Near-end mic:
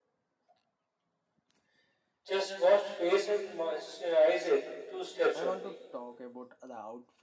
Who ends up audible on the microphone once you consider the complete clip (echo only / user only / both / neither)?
both